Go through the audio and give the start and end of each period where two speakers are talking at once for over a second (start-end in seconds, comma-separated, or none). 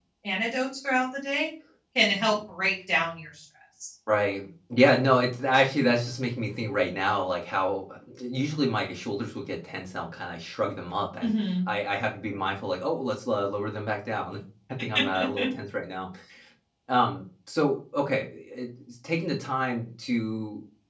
none